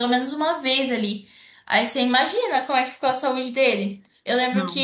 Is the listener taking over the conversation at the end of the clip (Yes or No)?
No